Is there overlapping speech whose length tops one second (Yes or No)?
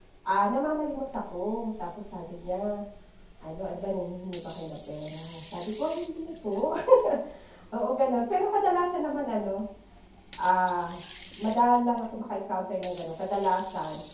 No